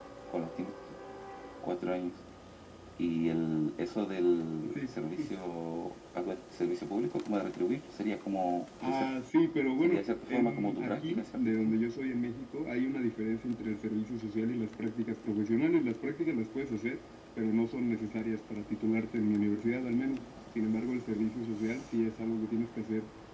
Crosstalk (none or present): present